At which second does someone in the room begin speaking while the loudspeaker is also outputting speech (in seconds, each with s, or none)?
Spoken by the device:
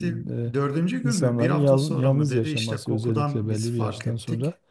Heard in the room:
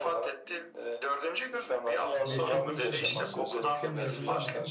2.2 s